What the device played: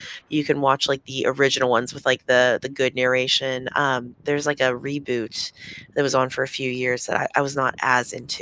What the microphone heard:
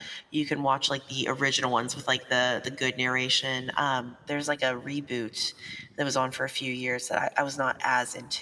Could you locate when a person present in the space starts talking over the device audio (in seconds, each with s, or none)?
none